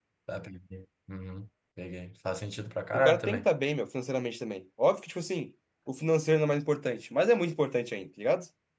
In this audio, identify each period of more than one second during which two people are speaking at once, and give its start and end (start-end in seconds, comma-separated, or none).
none